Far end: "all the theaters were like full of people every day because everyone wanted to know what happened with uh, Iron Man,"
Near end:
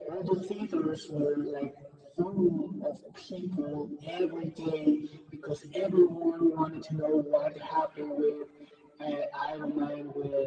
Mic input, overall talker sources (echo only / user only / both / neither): echo only